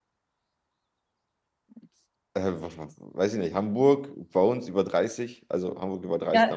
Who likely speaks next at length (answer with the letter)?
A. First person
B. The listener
B